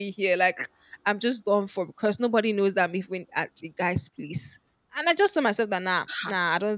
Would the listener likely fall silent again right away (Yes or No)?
Yes